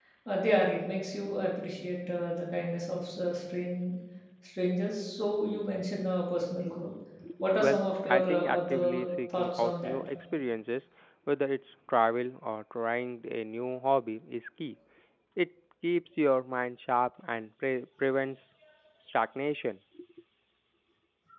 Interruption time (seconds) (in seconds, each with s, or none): 7.6 s